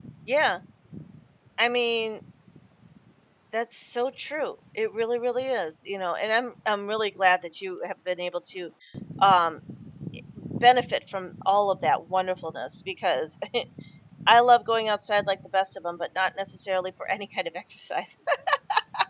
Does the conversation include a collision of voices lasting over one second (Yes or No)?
No